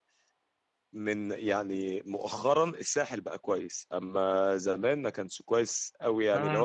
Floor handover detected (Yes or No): Yes